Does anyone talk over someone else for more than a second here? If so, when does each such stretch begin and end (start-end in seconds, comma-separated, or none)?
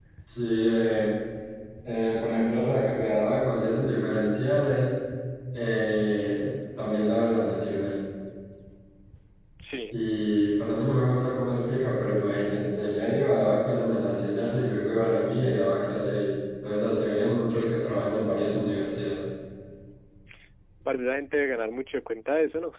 none